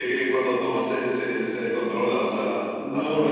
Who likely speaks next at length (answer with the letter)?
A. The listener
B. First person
A